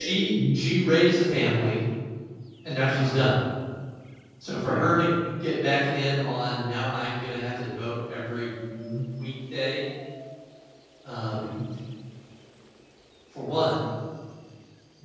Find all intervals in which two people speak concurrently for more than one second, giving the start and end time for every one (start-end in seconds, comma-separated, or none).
none